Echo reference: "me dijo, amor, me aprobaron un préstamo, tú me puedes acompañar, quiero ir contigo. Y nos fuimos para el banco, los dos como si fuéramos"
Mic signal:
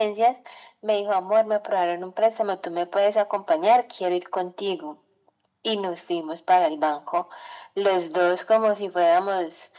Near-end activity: none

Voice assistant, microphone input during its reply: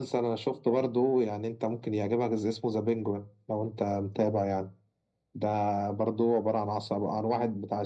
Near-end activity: none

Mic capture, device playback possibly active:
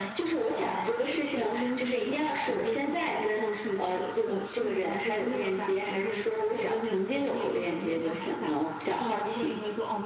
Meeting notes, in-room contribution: none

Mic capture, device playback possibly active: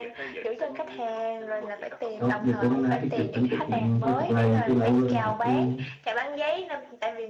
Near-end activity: present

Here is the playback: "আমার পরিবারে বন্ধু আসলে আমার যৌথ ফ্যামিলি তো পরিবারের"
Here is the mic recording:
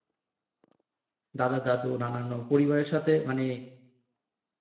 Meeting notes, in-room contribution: present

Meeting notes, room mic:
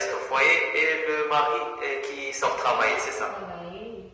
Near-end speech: present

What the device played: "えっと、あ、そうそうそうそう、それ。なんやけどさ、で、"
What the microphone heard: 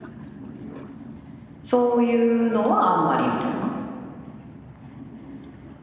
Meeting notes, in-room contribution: present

